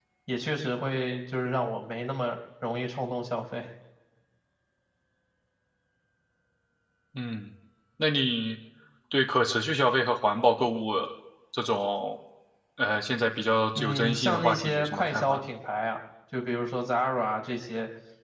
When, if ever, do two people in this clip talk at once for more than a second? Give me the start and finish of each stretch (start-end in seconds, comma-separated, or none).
13.8-15.4